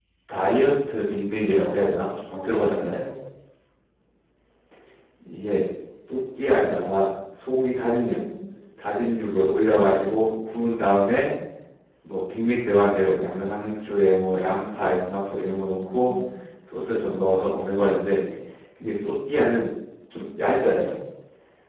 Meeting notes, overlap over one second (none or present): present